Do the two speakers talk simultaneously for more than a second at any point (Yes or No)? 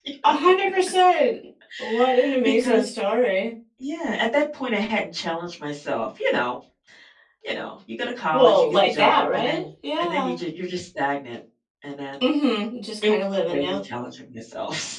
Yes